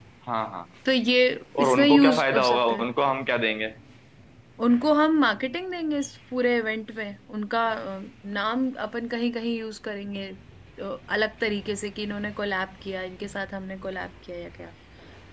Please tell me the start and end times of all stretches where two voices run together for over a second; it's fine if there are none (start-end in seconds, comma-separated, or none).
1.6-2.8